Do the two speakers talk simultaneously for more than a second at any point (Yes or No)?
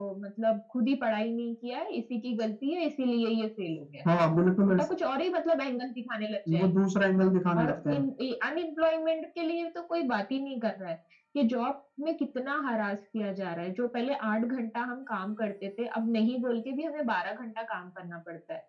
No